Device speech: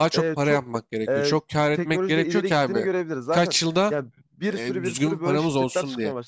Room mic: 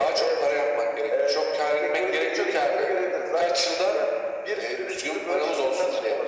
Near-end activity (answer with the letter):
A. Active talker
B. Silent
B